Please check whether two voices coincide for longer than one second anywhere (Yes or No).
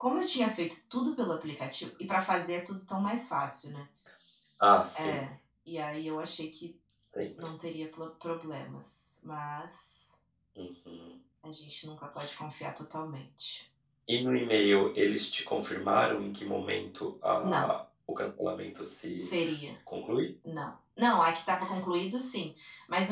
No